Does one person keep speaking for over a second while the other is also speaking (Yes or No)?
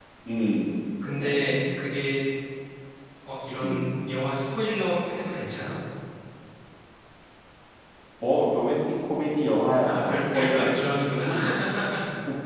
Yes